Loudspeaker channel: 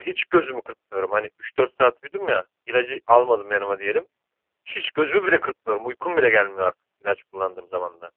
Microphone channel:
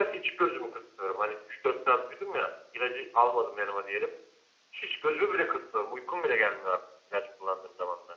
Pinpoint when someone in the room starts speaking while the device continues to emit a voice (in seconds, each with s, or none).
none